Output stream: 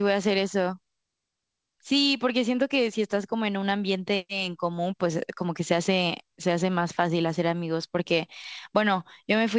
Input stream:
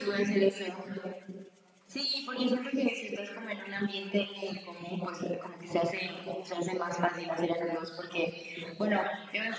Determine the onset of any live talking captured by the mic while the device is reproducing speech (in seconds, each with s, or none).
none